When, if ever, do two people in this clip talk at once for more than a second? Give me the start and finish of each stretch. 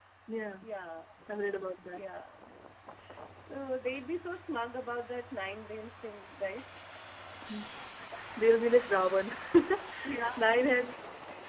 none

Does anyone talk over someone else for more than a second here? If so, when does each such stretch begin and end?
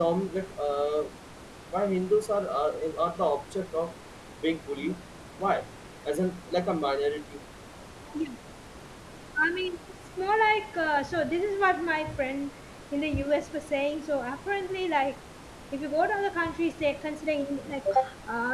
none

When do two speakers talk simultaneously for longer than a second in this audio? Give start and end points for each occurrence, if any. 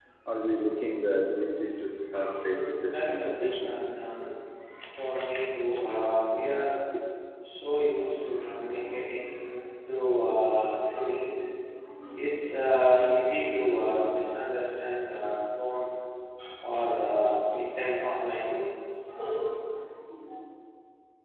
2.3-3.7

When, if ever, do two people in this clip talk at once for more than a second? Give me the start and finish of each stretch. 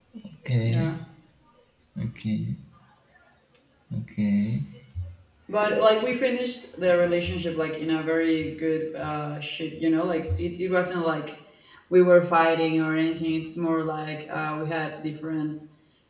none

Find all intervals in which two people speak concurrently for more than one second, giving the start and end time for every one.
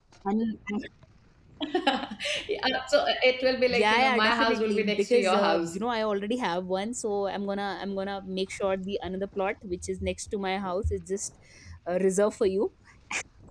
3.7-5.8

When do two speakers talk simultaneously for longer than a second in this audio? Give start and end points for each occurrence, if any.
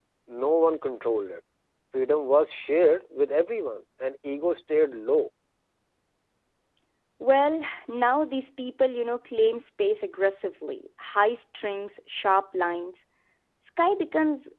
none

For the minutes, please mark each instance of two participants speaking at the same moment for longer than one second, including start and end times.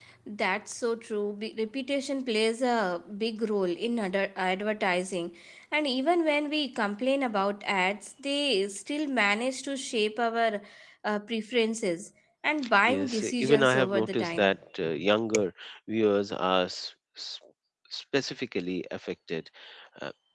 12.9-14.6

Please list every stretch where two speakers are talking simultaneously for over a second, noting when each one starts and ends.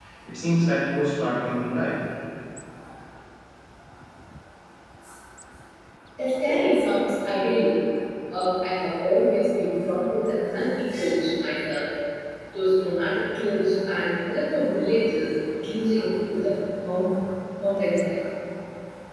none

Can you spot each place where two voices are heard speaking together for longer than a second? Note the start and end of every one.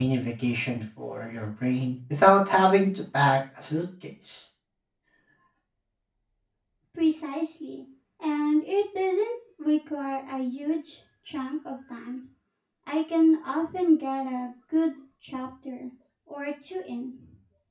none

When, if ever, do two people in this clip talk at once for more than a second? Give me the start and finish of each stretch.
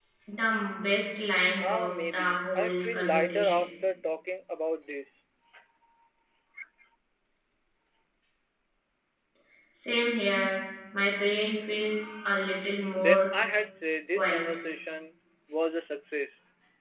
1.6-3.7

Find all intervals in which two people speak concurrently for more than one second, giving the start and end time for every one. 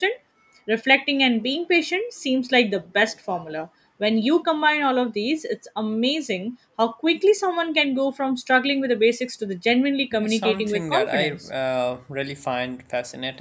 10.1-11.4

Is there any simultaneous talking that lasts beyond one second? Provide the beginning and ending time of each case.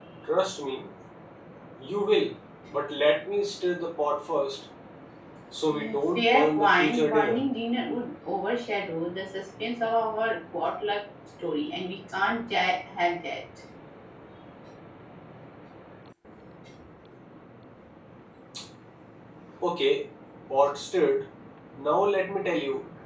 5.7-7.5

